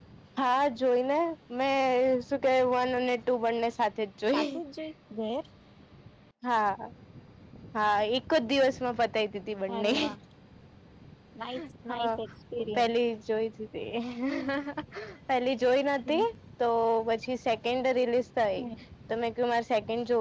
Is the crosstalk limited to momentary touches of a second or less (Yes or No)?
Yes